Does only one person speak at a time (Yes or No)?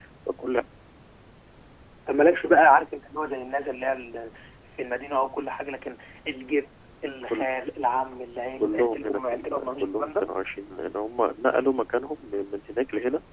No